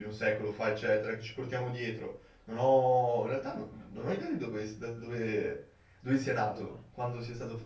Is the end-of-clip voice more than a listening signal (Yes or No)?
No